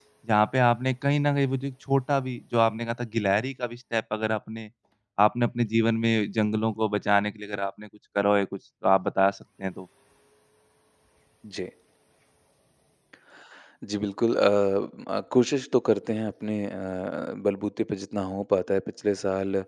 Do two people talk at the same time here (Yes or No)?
No